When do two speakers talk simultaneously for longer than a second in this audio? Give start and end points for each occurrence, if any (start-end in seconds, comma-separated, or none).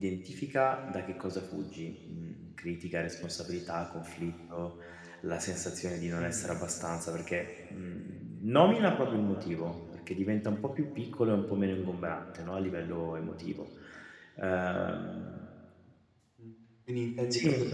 none